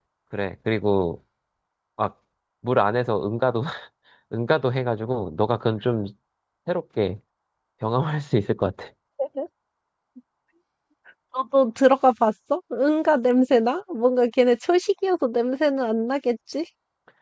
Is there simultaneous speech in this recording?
No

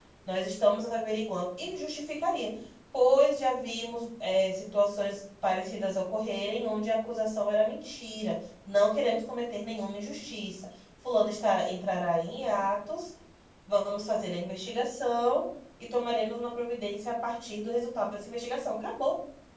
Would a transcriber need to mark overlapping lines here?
No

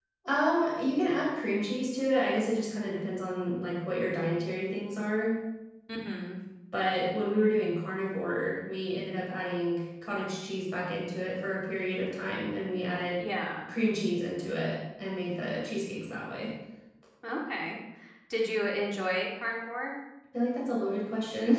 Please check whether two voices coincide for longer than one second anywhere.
No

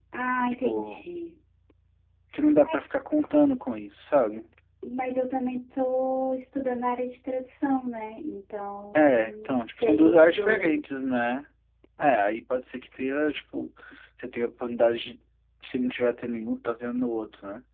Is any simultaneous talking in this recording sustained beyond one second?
Yes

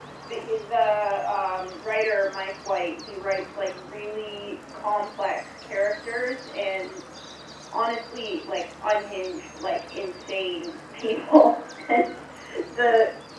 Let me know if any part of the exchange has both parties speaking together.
No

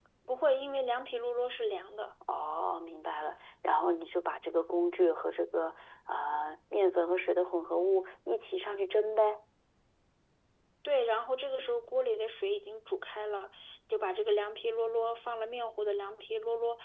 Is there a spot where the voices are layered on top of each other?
No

